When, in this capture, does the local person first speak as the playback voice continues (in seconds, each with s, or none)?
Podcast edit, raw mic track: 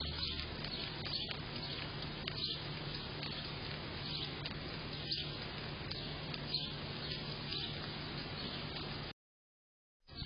none